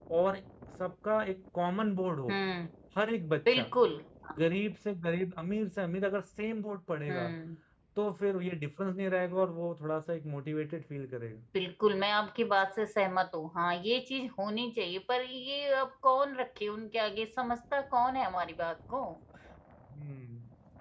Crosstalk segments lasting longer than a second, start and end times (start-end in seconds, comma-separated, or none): none